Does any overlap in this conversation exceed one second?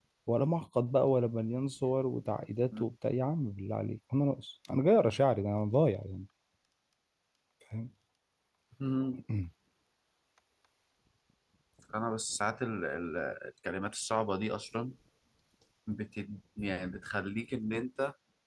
No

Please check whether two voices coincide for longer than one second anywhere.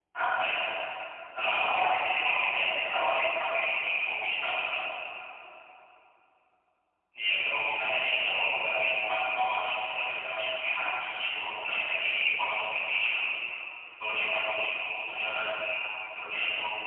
Yes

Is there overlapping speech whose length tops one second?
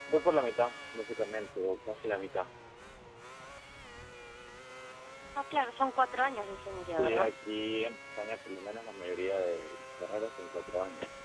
No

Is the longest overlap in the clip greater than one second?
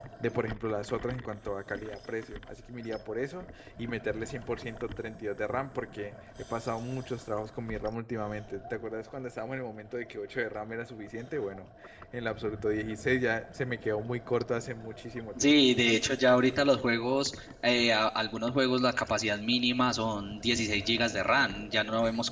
No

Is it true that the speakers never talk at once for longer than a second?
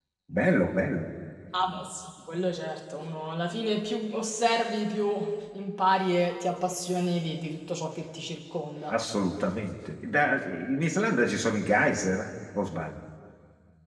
Yes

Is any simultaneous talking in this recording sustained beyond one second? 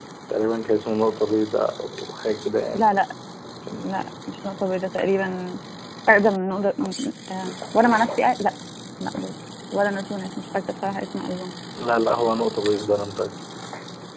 No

